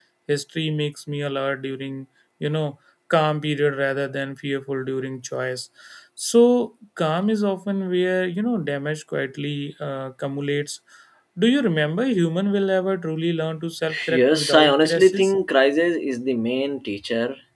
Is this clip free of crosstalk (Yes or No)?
No